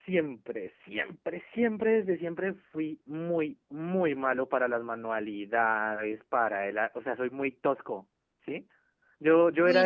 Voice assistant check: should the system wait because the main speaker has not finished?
No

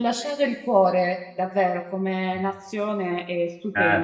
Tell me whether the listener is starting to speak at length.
Yes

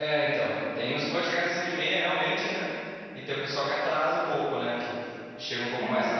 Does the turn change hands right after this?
No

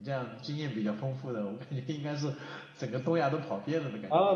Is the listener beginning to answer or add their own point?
Yes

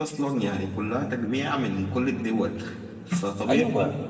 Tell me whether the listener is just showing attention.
Yes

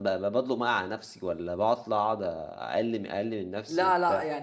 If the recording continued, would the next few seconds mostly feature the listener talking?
Yes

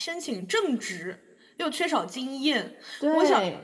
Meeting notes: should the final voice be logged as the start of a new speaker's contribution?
No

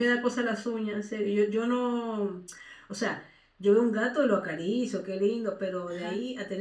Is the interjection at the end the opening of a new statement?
No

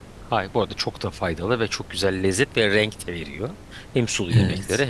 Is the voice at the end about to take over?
No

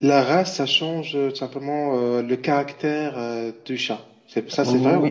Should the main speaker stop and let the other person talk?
Yes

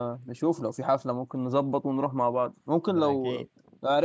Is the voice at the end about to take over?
No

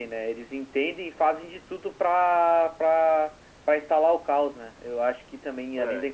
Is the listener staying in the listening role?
Yes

